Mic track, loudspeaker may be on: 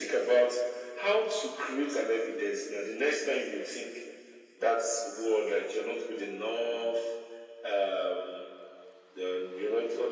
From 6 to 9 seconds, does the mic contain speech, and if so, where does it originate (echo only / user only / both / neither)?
echo only